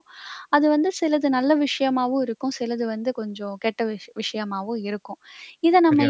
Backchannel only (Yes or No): Yes